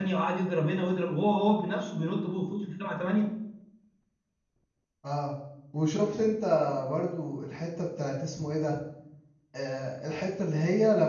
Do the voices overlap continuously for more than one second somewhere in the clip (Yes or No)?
No